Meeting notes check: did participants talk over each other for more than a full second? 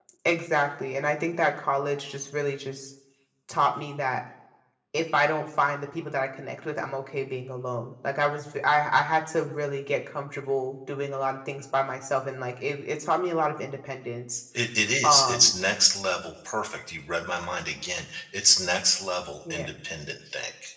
No

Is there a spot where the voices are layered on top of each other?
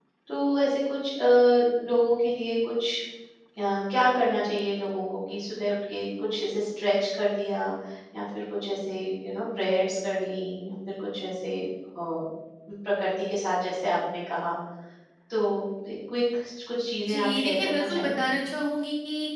Yes, from 17.1 s

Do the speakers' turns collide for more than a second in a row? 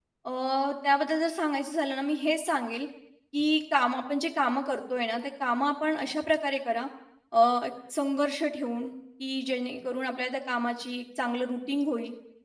No

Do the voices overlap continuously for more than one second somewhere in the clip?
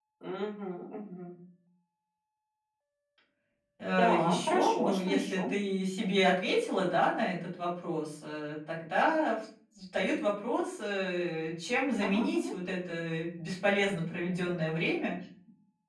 Yes, from 3.9 s

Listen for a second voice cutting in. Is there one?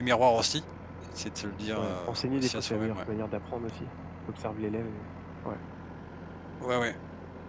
Yes, from 1.8 s

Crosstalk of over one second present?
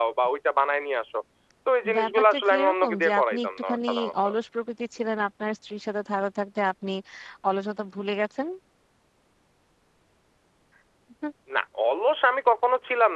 Yes, from 2.0 s

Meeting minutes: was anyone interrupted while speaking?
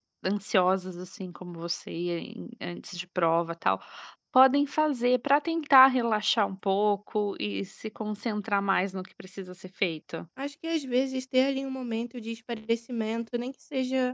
No

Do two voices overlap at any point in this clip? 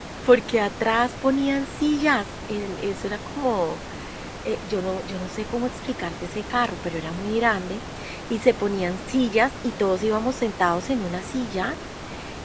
No

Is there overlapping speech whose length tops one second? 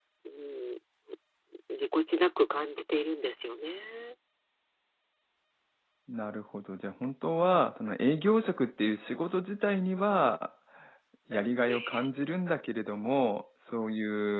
No

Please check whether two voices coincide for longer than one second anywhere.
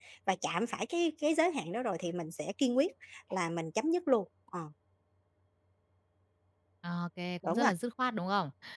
No

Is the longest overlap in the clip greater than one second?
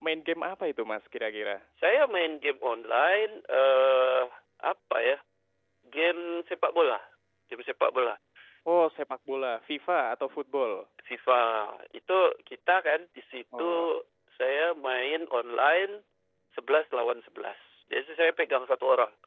No

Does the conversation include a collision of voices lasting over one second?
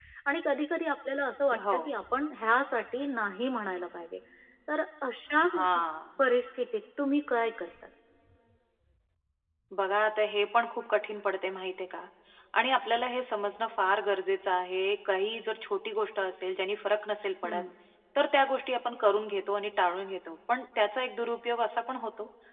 No

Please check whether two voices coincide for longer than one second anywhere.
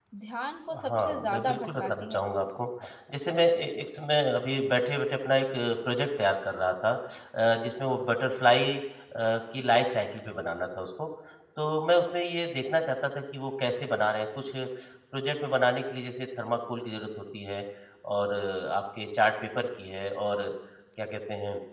Yes, from 0.9 s

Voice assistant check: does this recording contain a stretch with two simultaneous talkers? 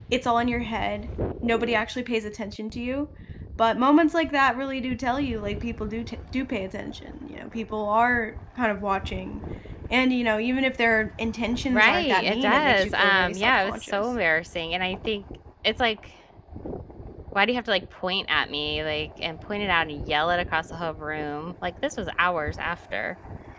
Yes, from 11.7 s

